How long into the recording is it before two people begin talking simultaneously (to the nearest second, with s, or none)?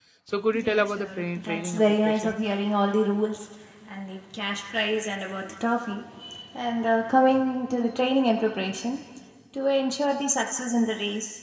1 s